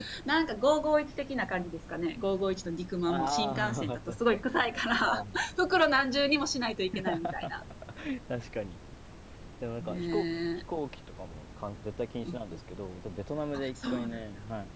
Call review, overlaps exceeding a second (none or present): present